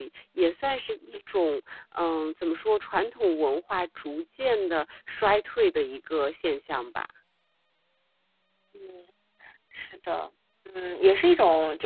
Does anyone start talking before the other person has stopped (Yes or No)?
No